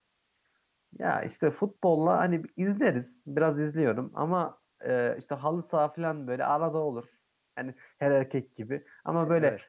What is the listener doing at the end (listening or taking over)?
listening